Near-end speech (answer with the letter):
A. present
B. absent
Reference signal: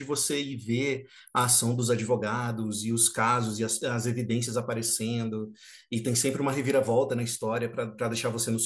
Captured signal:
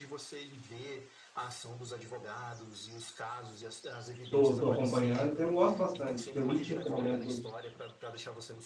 A